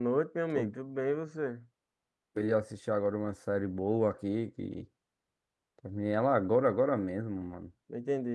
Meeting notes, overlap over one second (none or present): none